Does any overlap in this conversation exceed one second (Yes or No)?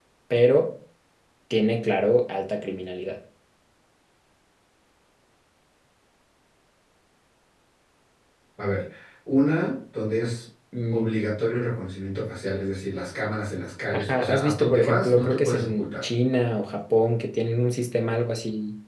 Yes